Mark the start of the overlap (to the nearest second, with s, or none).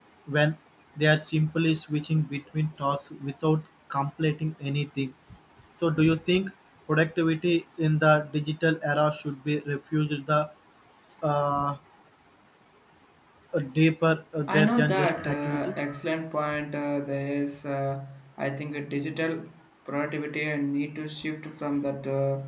14 s